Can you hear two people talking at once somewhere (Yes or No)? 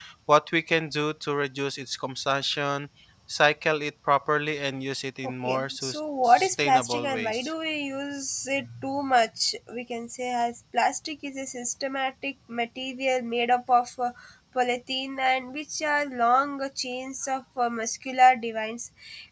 Yes